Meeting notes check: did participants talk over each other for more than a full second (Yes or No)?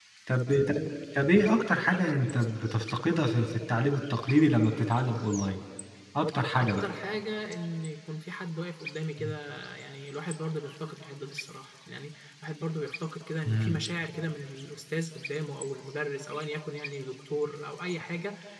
No